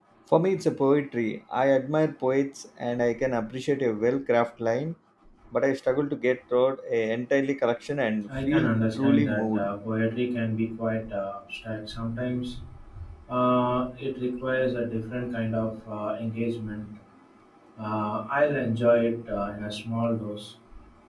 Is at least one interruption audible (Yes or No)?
Yes